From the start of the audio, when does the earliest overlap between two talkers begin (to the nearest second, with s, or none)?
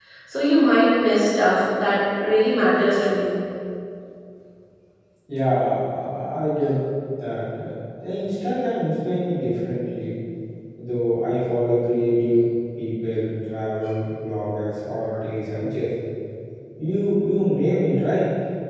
none